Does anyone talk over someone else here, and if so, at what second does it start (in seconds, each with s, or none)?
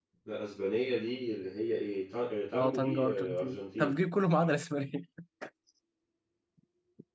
2.5 s